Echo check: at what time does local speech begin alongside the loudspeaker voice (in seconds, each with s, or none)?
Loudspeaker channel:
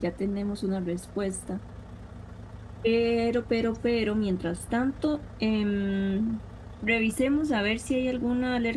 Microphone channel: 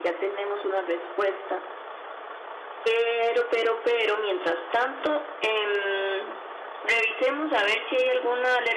none